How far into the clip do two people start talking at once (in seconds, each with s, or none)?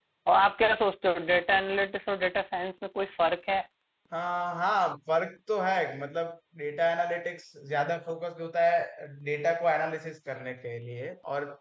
none